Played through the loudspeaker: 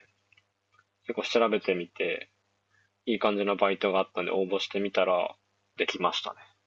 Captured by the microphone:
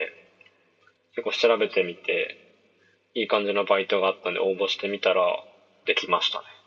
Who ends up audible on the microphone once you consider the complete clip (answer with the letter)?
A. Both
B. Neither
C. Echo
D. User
C